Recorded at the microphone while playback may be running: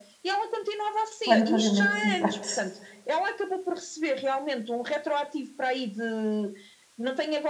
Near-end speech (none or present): present